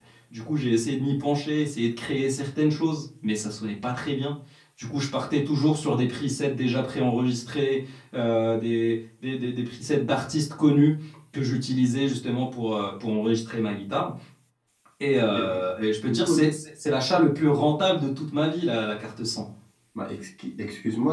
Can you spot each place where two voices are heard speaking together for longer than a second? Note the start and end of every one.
none

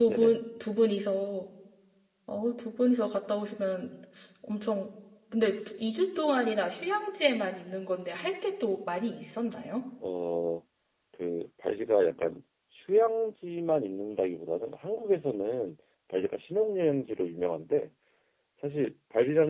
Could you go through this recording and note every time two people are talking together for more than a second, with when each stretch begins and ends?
none

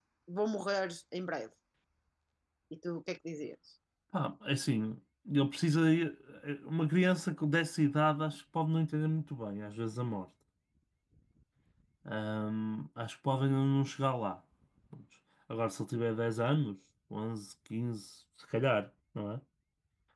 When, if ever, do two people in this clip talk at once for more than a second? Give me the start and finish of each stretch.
none

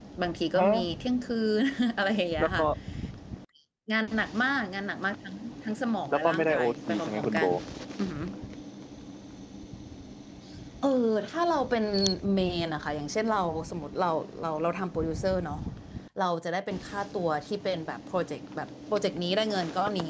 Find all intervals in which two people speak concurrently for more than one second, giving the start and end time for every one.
6.1-7.4

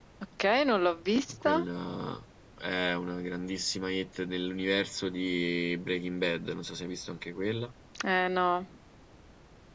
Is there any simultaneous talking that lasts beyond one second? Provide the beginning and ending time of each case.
none

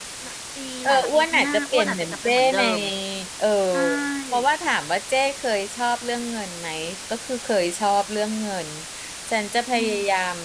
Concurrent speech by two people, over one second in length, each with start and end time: 0.8-2.6

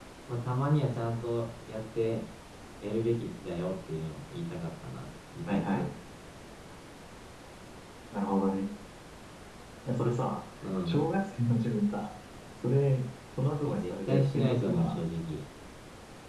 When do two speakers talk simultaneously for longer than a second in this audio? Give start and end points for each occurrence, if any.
13.6-14.9

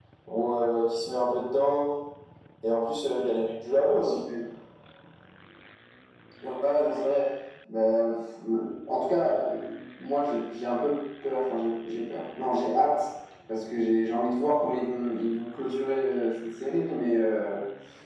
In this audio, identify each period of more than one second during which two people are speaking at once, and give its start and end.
none

